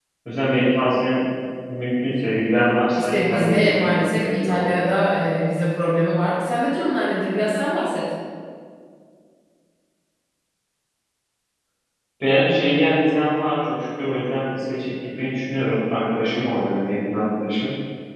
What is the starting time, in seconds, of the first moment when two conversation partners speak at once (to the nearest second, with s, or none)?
3 s